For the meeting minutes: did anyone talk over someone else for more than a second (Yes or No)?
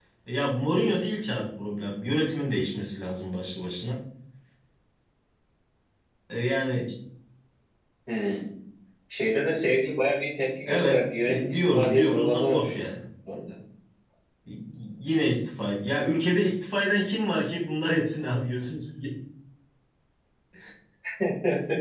Yes